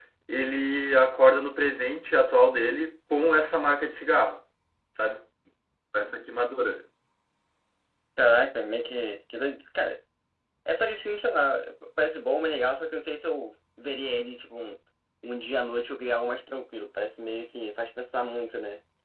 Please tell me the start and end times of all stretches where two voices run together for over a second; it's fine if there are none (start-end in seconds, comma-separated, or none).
none